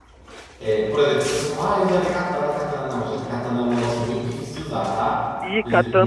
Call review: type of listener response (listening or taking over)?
taking over